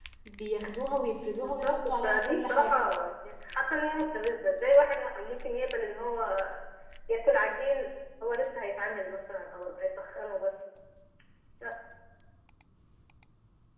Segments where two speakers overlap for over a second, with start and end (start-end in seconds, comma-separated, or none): 1.3-2.8